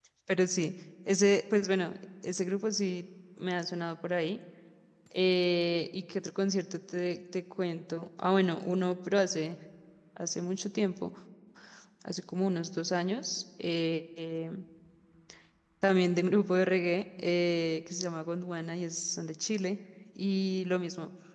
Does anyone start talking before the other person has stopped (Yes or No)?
No